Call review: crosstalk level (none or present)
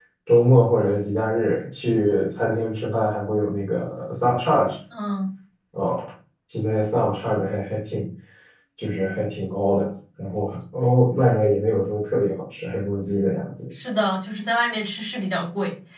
none